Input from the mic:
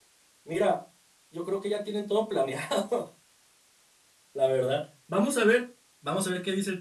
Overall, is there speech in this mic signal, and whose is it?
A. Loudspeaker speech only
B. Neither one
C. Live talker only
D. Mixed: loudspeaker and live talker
C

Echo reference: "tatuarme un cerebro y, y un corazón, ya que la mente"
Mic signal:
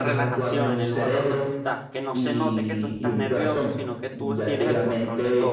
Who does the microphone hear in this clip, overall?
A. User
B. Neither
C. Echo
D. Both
D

